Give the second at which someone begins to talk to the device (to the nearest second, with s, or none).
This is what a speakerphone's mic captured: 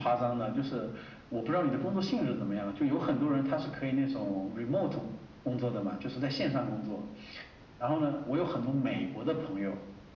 none